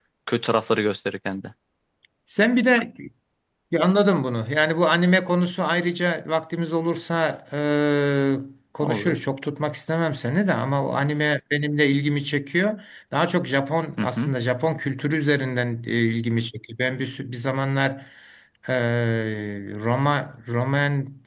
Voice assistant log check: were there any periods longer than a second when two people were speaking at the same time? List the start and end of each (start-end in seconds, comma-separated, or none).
none